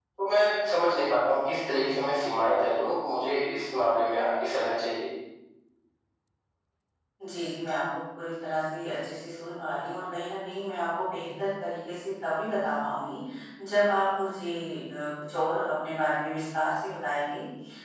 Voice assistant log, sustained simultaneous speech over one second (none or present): none